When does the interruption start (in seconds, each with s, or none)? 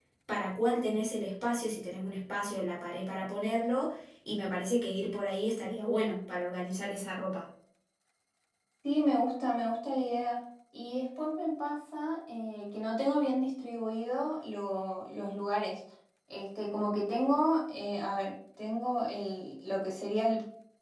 none